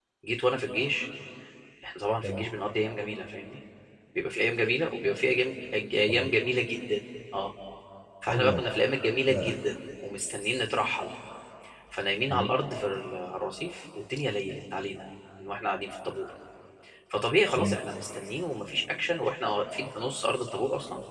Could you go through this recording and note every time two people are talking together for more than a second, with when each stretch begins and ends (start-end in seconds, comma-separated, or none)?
none